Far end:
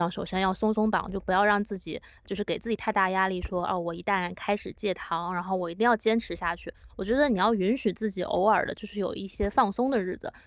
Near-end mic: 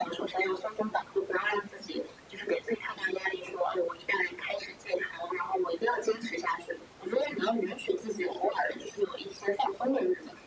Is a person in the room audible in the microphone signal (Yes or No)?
No